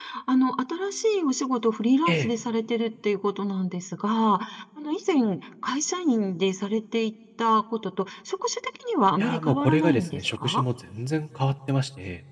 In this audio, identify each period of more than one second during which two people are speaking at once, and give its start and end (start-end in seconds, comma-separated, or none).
9.2-10.6